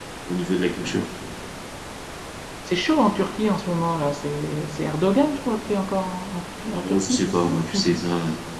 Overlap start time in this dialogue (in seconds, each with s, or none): 6.7 s